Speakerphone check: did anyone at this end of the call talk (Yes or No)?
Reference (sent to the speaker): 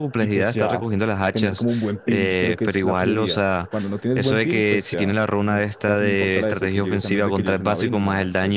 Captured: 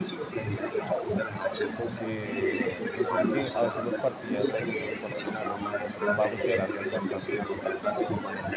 Yes